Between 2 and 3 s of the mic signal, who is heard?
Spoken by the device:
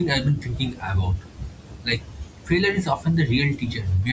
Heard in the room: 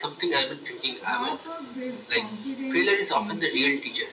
both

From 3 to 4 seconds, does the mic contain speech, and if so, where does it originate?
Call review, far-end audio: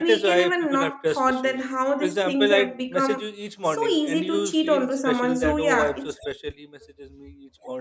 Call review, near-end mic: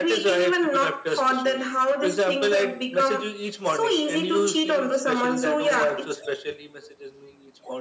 echo only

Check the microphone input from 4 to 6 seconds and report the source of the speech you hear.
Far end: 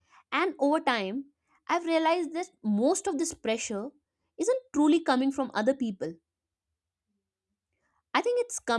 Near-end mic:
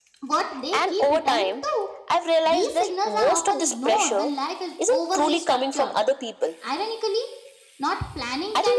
both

